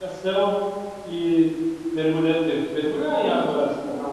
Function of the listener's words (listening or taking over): listening